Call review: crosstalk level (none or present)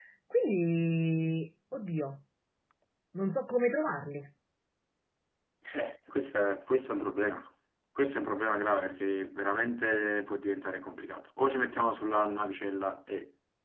none